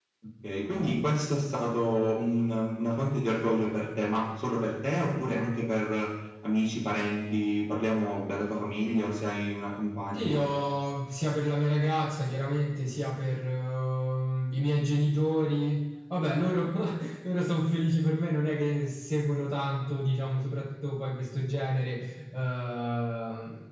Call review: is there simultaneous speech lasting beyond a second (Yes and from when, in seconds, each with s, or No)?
No